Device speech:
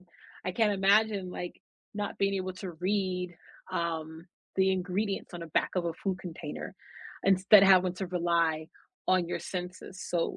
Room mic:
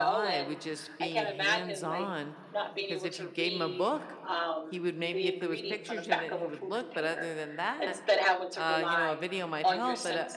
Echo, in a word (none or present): present